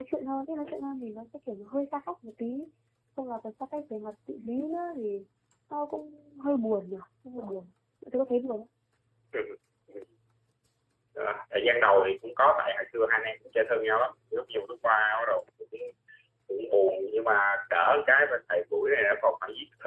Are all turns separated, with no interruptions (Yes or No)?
Yes